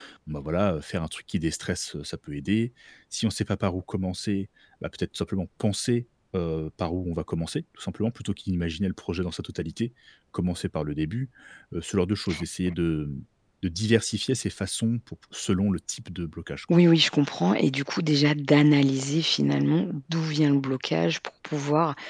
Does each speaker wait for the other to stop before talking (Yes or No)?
Yes